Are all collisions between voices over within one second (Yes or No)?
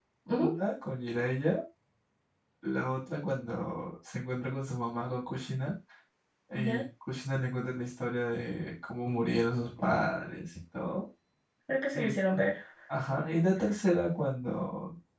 Yes